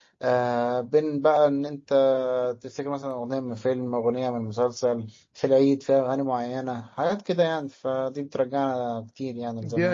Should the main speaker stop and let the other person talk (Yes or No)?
Yes